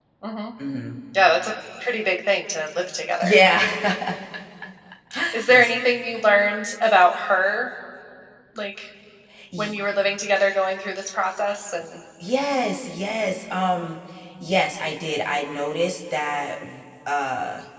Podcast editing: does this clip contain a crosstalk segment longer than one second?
No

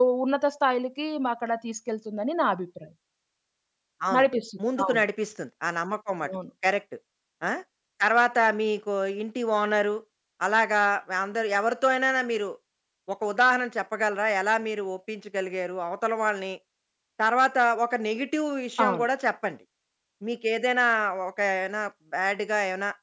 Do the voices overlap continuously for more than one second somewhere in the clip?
No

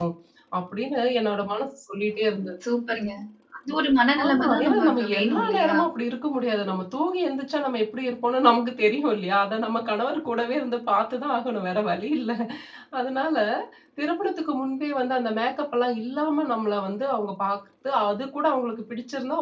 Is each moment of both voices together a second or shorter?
No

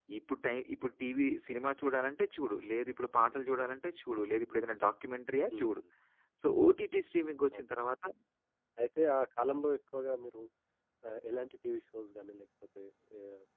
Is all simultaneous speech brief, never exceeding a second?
Yes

